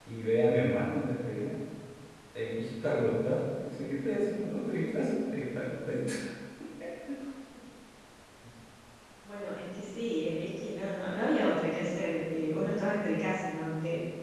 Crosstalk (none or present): none